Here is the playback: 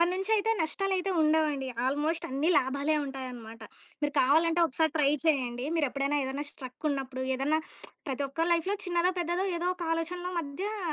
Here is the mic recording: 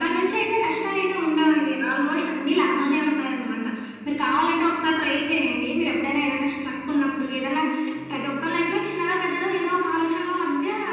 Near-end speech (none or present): none